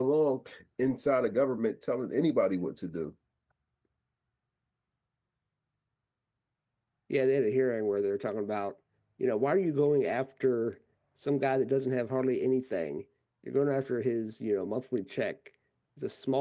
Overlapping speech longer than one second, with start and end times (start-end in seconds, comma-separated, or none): none